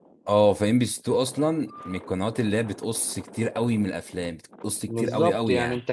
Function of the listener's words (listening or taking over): taking over